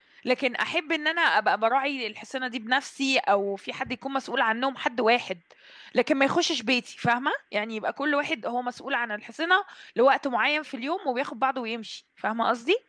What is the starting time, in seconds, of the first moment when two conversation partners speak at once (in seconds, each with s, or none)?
none